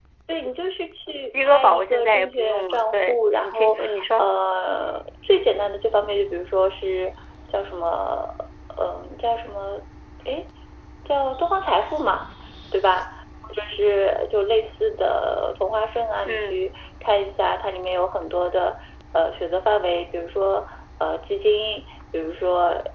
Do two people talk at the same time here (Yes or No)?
Yes